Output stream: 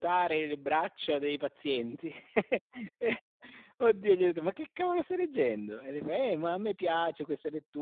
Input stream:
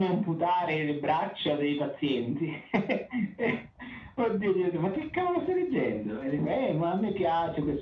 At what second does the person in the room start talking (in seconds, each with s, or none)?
none